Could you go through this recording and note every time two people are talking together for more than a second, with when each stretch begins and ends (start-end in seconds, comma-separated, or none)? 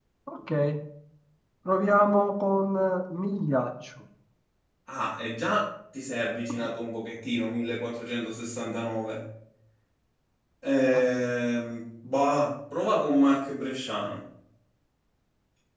none